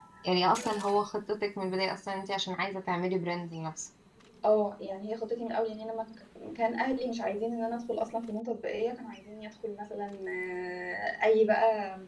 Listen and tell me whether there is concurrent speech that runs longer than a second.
No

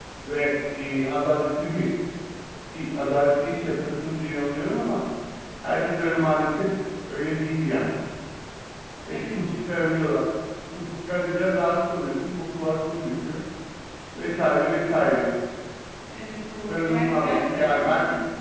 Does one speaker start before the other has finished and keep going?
Yes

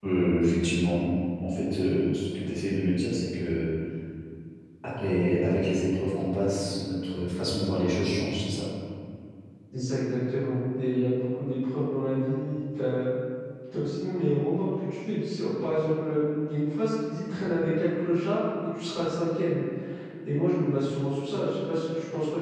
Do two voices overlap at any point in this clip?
No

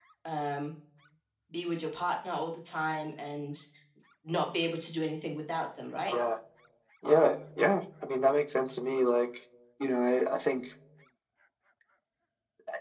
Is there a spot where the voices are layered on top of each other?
No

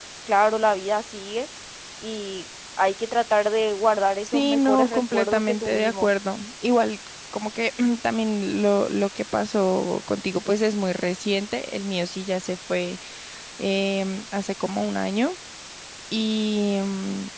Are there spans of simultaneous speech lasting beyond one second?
Yes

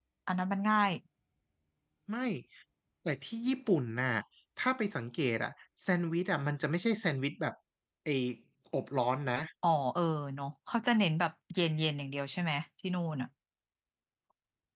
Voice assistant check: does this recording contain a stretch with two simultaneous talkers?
No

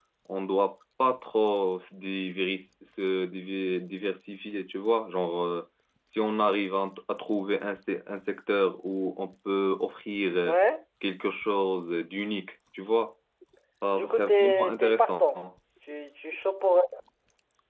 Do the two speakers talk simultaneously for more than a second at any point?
Yes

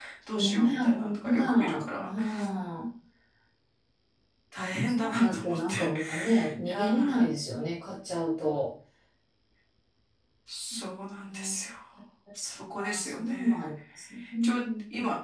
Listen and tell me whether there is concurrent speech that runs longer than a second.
Yes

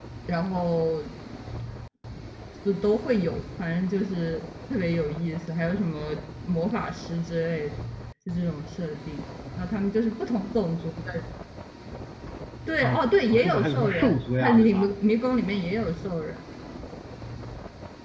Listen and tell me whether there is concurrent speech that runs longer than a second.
Yes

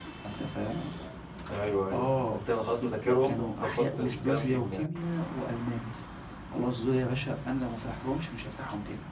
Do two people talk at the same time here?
Yes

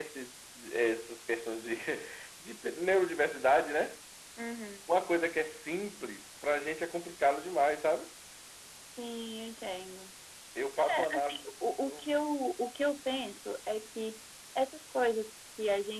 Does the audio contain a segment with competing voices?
Yes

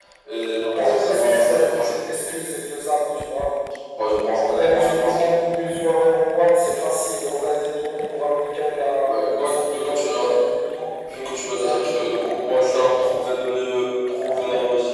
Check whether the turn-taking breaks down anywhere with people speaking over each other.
Yes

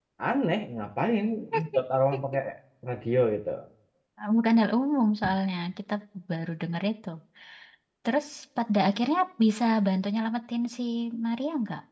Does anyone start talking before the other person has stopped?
No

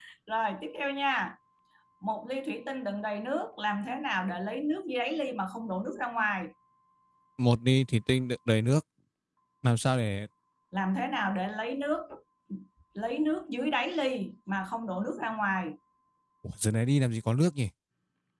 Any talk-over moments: No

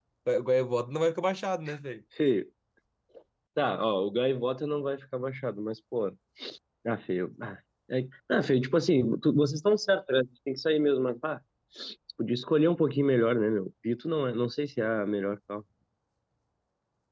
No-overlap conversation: Yes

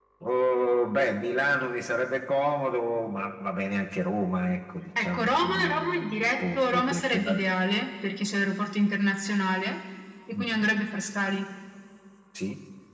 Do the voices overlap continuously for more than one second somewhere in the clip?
Yes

